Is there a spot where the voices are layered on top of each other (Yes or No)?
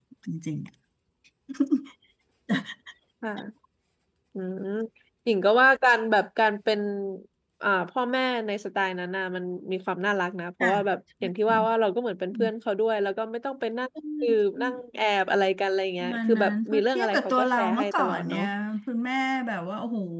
Yes